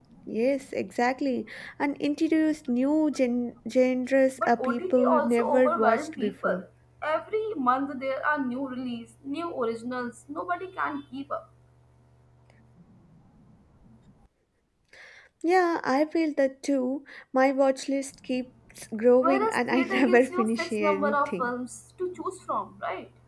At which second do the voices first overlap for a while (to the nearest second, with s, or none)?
4 s